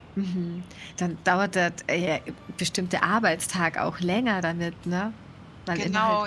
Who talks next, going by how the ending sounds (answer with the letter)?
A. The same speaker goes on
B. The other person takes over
B